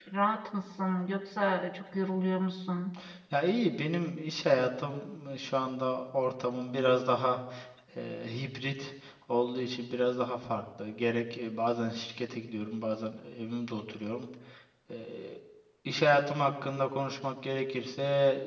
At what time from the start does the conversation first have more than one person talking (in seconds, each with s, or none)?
none